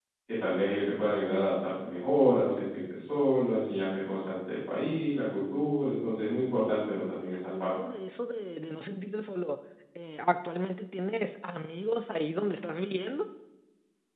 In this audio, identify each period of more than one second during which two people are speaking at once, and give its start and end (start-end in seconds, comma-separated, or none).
none